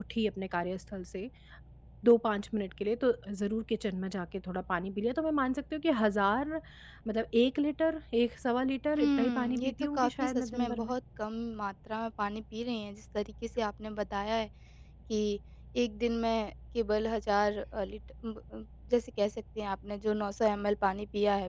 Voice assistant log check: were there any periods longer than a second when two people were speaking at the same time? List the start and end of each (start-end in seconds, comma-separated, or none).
9.0-10.9